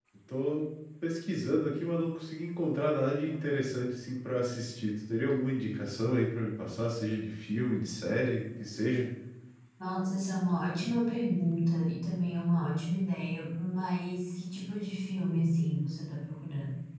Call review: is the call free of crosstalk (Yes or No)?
Yes